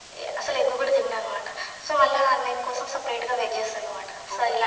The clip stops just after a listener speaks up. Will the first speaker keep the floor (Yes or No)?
No